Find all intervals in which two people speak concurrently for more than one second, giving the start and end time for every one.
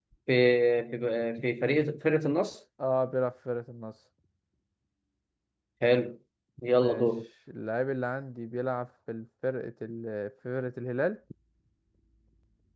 none

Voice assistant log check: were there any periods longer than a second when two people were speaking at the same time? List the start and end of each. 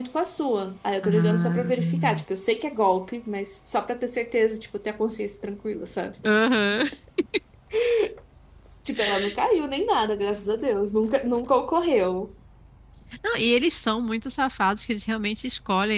1.0-2.2

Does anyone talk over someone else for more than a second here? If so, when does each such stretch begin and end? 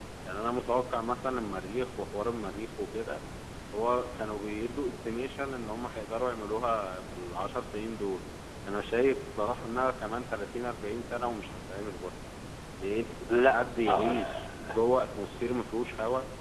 13.3-14.8

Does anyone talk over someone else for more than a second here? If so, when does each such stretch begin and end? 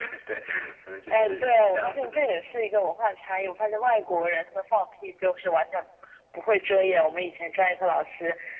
1.1-2.3

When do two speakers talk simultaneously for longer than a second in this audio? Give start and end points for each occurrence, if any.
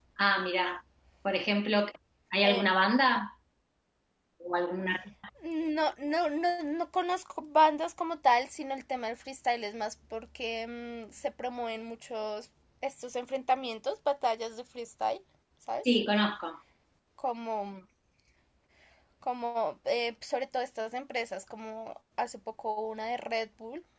none

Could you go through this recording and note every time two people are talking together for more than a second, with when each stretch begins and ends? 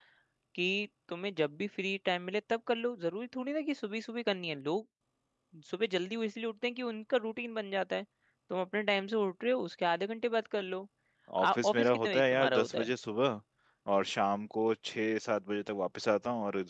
11.6-12.9

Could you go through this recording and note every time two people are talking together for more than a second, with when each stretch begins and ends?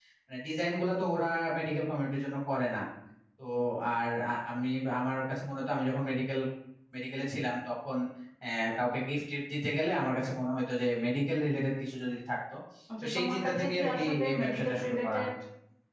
13.0-15.2

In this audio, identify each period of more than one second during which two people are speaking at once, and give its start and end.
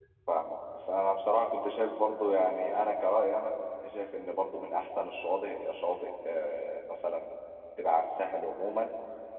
none

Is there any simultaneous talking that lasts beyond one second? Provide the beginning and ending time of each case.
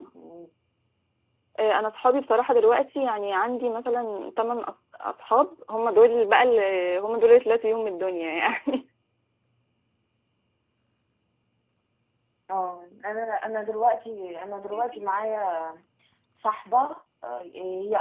none

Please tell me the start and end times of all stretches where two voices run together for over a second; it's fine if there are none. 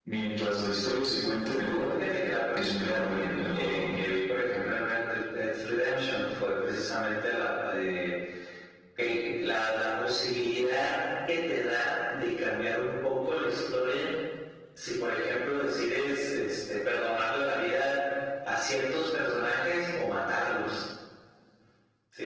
2.6-4.0

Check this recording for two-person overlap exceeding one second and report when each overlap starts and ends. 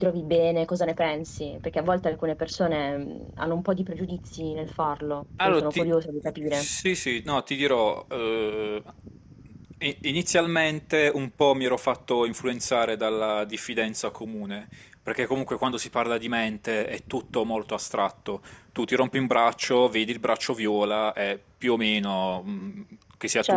none

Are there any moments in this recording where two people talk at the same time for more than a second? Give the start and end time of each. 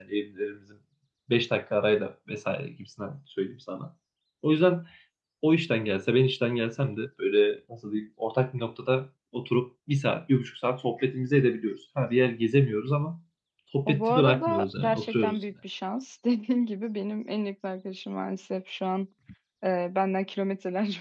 13.9-15.4

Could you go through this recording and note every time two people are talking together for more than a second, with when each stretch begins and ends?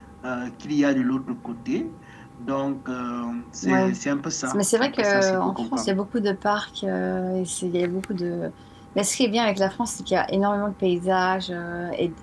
4.5-5.9

